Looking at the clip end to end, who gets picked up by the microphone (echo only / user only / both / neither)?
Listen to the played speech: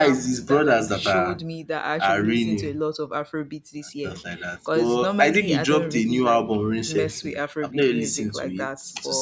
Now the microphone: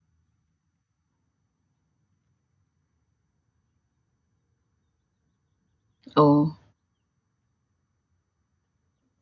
user only